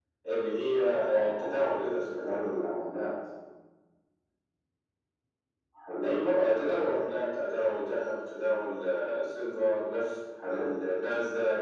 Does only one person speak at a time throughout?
No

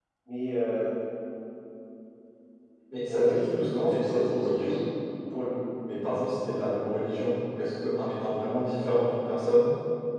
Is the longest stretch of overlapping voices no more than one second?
No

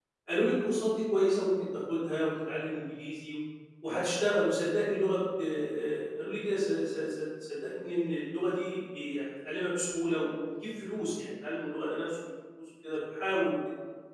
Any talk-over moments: No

